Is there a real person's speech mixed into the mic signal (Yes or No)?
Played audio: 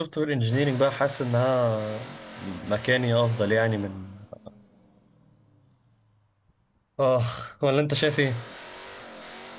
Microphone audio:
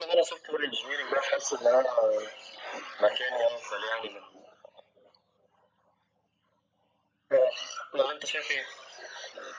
No